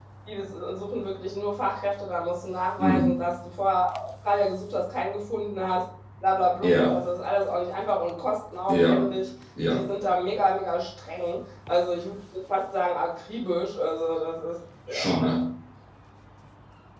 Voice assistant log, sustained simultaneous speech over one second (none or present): none